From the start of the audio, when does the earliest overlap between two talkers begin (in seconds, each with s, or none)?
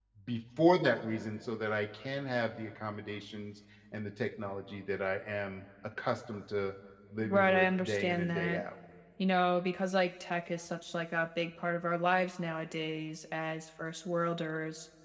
7.2 s